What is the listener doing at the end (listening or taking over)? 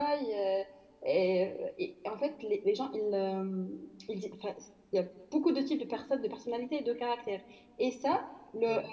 listening